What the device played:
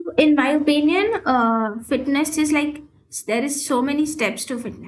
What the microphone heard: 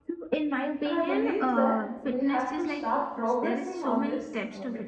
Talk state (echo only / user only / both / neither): both